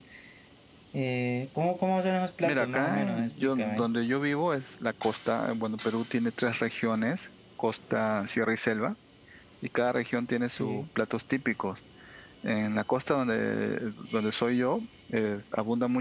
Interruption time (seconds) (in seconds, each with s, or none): 2.4 s